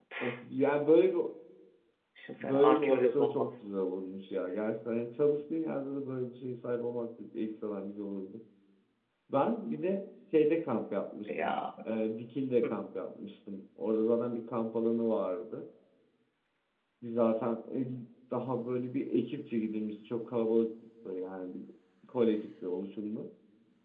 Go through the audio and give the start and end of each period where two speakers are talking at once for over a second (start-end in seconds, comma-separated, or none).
2.4-3.6